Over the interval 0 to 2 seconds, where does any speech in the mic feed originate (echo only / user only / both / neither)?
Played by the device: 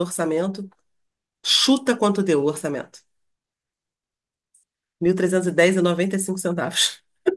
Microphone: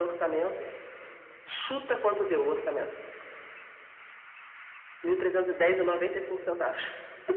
echo only